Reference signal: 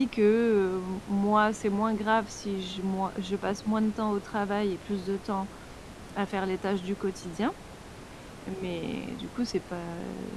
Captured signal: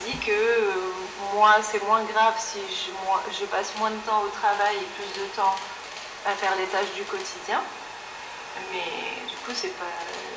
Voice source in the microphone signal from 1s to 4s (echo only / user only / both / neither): echo only